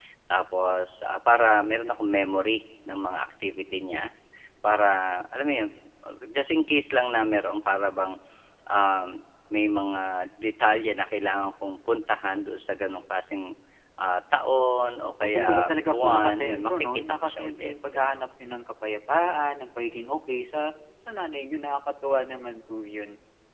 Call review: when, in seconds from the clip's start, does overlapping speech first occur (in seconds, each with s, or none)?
15.2 s